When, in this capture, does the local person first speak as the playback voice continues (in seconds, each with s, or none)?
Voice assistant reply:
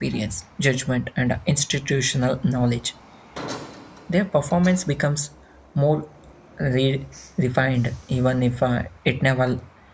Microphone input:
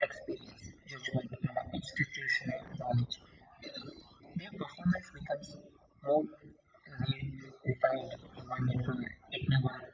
none